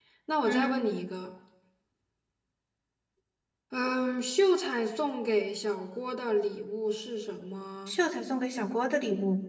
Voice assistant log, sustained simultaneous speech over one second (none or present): none